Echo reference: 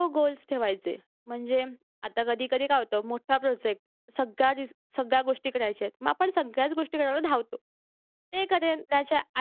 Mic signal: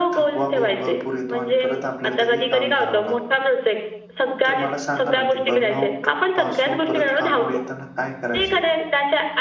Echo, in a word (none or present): present